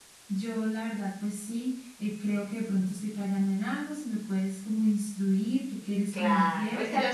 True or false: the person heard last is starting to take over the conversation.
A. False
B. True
B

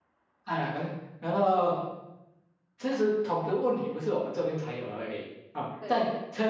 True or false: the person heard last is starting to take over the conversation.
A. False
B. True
A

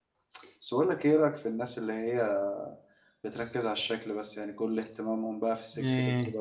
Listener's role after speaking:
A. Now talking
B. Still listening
B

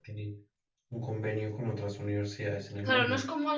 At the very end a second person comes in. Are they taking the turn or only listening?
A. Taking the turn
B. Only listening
A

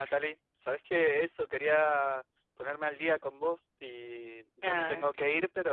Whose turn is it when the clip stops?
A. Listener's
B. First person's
B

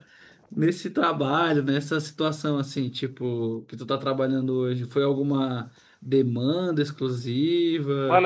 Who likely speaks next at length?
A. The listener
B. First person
A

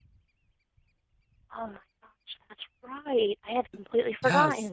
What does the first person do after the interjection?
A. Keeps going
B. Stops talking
B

